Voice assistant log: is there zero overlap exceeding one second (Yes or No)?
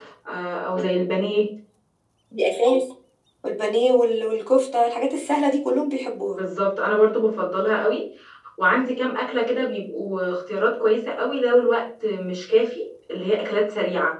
Yes